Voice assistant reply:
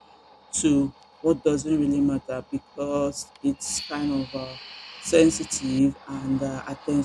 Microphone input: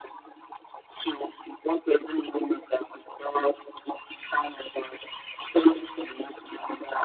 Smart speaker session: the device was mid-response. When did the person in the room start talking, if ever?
none

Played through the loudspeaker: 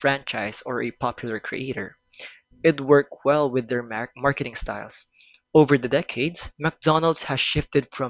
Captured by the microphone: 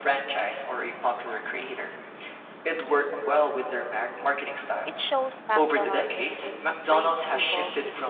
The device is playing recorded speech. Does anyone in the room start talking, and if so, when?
4.8 s

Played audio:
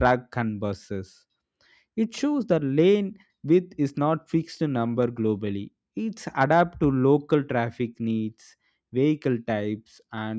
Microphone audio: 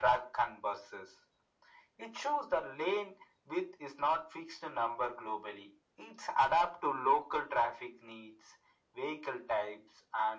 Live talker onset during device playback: none

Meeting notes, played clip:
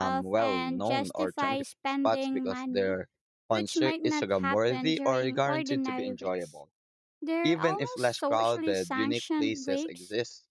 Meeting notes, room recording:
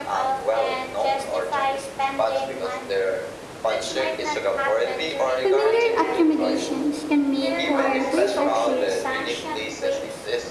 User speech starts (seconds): 5.4 s

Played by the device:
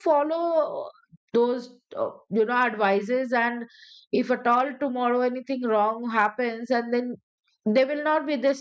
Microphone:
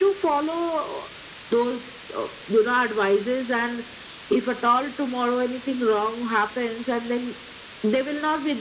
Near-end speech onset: none

